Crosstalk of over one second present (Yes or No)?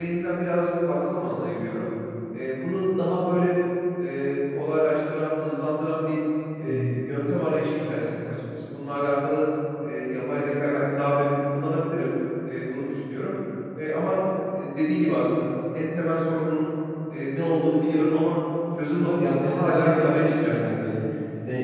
Yes